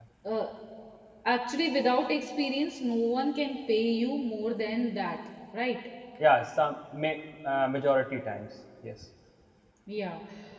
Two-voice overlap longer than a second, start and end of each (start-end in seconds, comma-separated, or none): none